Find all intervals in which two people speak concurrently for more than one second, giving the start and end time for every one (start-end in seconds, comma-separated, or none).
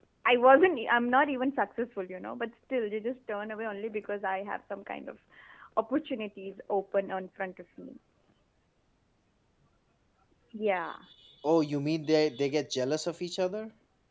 none